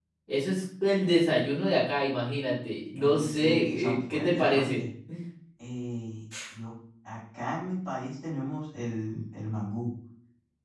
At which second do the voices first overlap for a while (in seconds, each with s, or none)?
3.0 s